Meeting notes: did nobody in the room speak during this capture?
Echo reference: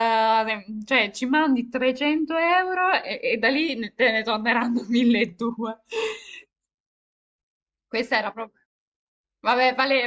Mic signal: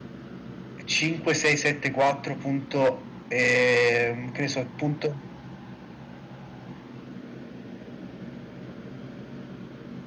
No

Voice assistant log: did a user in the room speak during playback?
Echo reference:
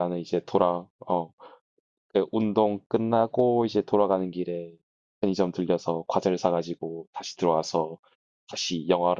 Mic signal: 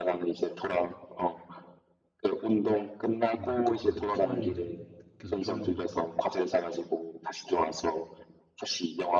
Yes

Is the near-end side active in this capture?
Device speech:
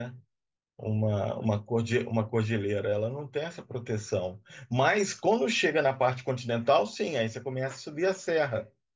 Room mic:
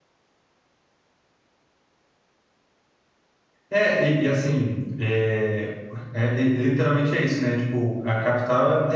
Yes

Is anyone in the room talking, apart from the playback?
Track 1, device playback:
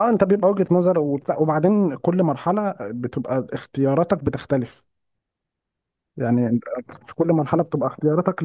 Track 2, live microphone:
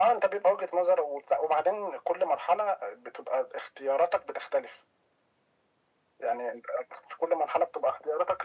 No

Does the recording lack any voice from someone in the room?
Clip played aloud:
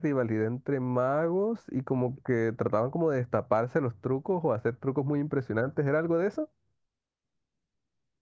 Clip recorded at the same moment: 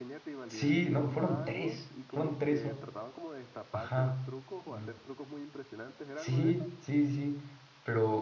No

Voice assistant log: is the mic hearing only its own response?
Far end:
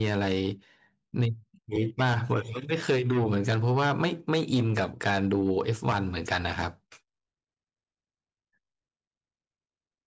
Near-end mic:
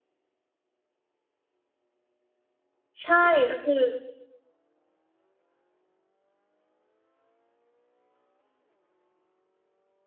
No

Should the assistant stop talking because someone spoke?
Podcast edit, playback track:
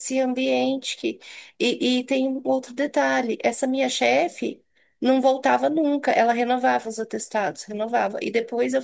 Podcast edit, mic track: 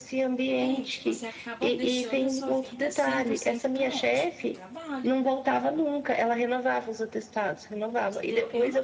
Yes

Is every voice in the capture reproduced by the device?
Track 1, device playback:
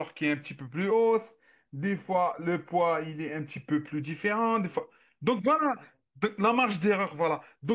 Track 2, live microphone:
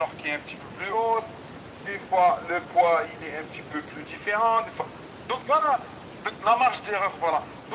Yes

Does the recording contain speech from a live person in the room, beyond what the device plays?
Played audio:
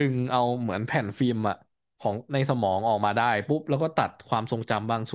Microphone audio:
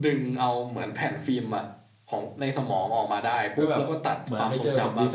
Yes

